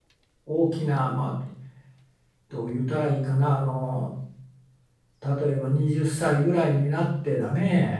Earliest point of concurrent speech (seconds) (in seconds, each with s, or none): none